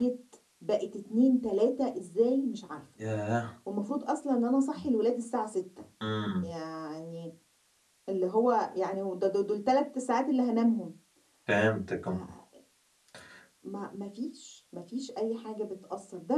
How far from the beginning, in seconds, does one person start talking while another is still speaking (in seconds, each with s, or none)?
none